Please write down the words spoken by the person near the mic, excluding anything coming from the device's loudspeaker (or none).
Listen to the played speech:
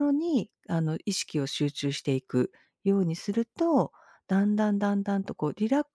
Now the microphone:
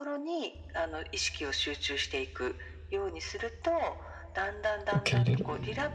受け入れる。